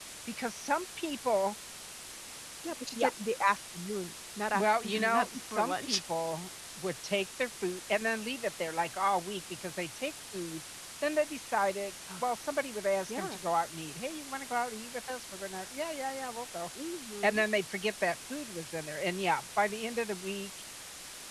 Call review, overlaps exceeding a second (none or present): present